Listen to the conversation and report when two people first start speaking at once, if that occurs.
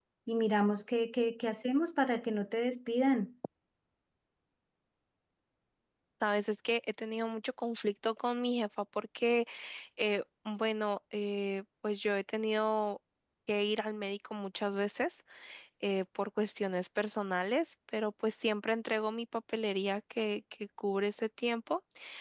none

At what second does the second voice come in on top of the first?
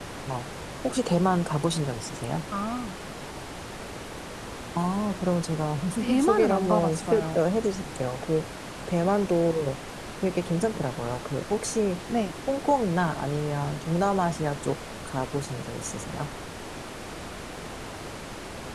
6.2 s

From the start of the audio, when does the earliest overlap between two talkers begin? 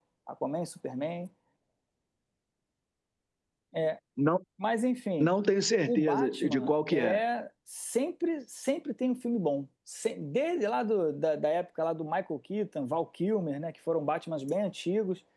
5.9 s

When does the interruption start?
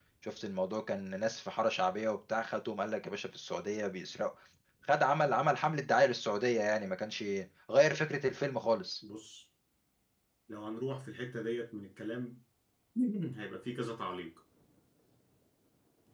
none

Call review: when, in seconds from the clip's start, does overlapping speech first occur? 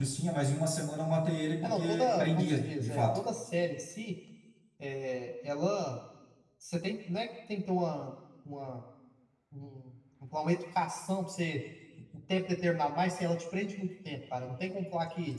1.6 s

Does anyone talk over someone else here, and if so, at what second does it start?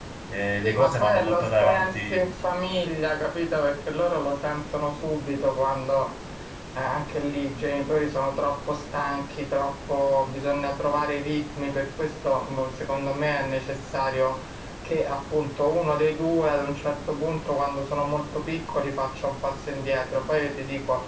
0.6 s

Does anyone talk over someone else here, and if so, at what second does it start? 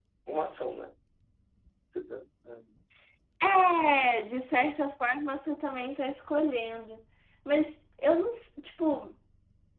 none

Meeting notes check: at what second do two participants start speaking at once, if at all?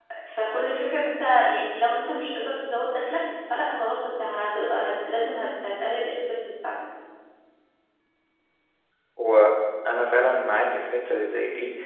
none

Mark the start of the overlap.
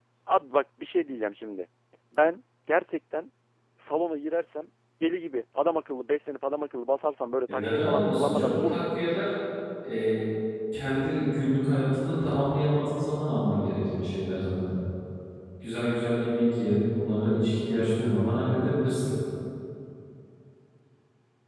7.5 s

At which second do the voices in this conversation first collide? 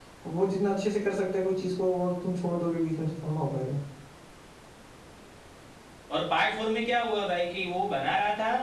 none

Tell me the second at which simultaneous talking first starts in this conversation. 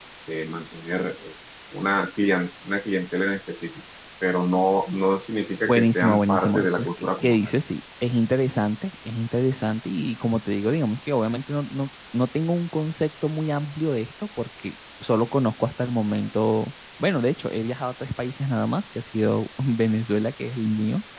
5.7 s

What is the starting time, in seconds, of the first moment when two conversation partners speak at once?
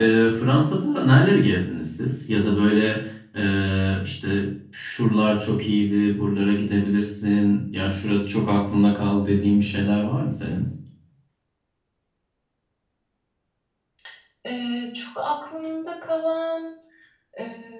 none

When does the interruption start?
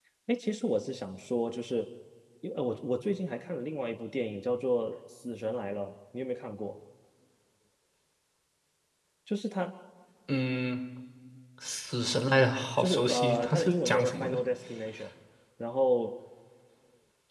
12.8 s

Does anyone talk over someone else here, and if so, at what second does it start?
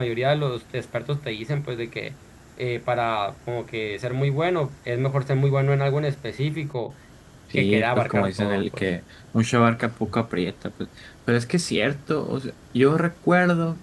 7.6 s

